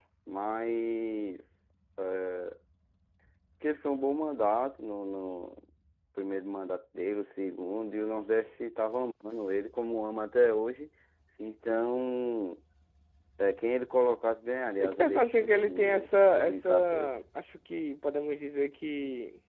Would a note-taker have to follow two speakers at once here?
Yes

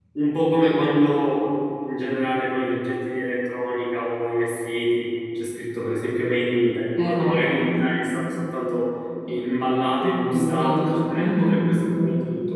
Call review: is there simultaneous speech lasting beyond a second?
Yes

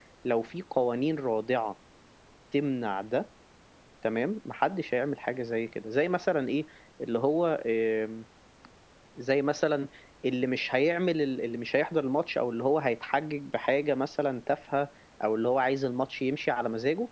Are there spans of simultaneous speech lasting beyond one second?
No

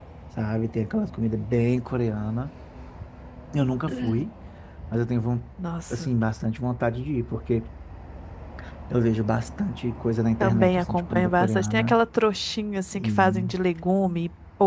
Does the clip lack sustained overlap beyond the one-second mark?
No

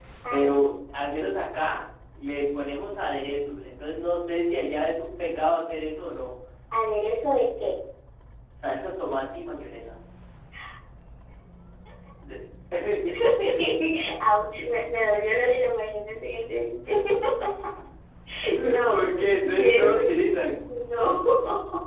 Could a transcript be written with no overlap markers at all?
No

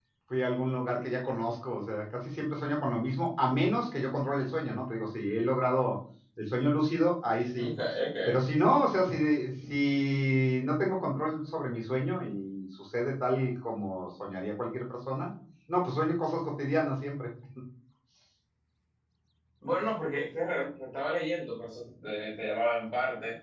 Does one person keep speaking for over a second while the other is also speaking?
No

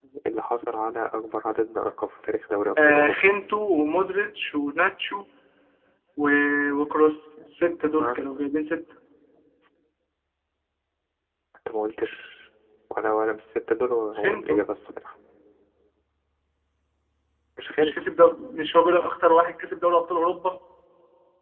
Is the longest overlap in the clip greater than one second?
No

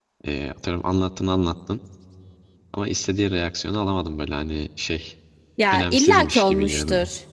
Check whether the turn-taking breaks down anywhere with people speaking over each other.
Yes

